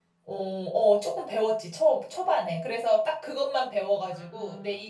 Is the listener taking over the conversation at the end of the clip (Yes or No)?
No